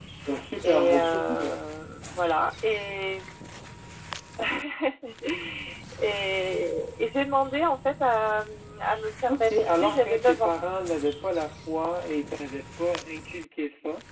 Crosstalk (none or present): present